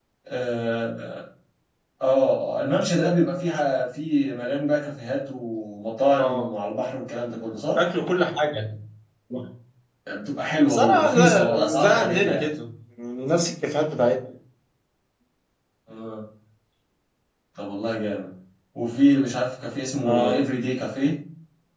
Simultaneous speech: Yes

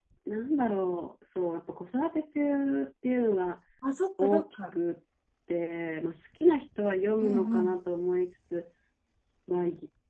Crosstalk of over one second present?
No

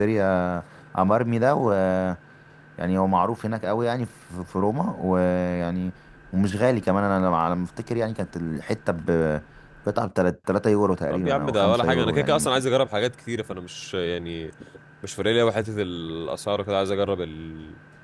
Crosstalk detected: Yes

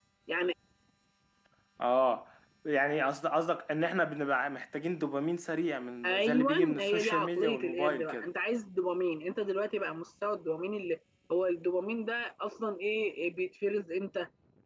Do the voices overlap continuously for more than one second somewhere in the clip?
Yes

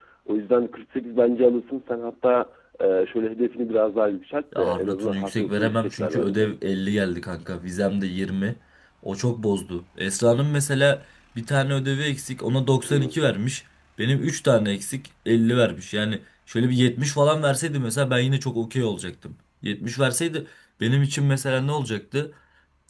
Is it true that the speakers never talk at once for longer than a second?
No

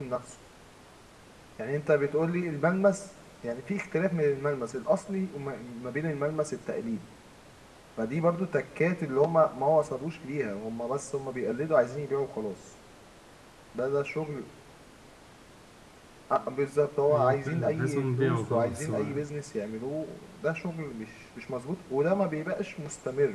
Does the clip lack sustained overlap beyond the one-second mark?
No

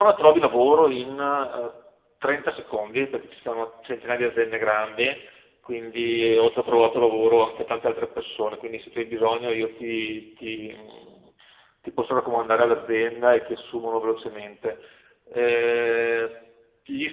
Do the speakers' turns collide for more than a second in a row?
No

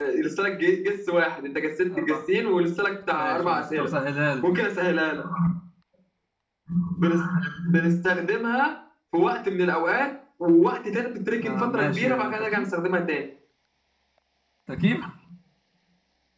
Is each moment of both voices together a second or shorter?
No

